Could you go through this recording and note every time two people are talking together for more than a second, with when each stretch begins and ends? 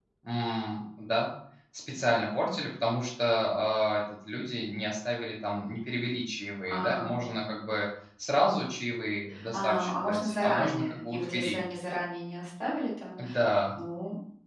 9.5-11.6

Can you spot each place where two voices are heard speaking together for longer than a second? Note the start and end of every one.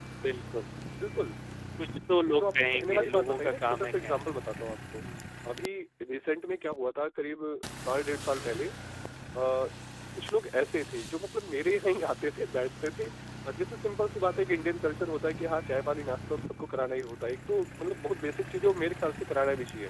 2.3-4.2

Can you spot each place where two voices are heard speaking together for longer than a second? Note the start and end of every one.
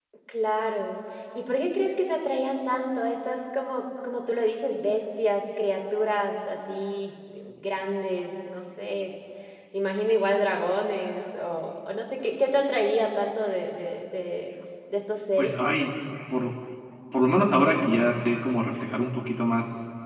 none

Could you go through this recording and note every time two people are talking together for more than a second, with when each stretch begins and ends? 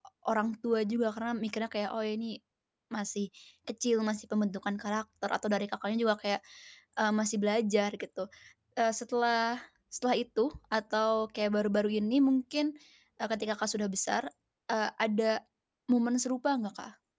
none

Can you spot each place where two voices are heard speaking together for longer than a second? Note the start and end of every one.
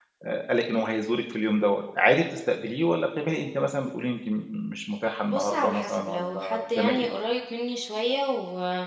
5.2-7.1

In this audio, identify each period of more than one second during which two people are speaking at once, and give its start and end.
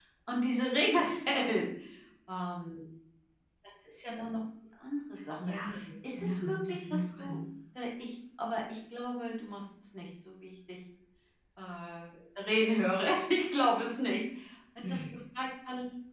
6.1-7.4

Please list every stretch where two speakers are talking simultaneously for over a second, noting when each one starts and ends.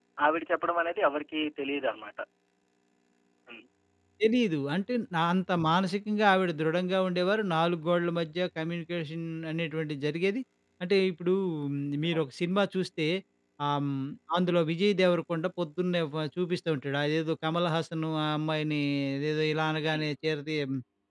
none

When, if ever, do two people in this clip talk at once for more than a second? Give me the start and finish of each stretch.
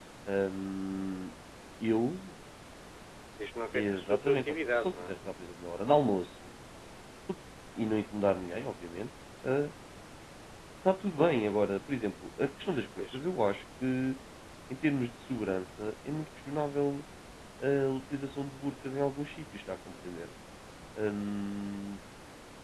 3.7-5.1

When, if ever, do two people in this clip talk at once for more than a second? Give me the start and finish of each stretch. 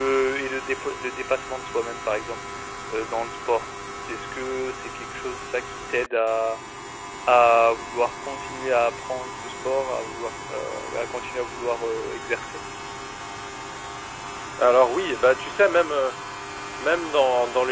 none

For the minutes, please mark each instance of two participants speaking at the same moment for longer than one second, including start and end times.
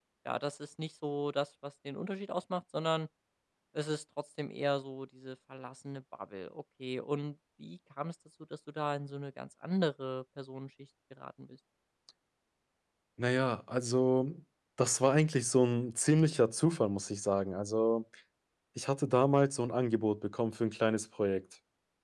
none

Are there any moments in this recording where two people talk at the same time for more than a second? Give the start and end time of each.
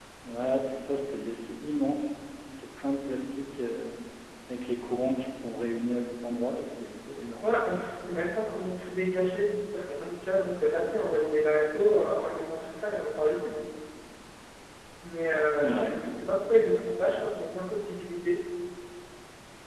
none

